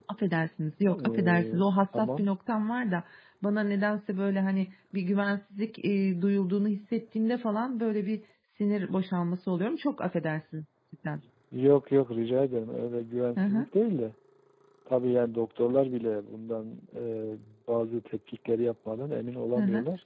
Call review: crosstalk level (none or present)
present